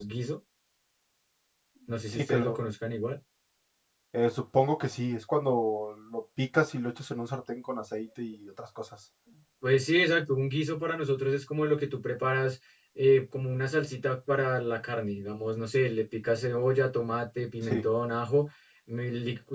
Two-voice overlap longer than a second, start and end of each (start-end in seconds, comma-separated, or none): none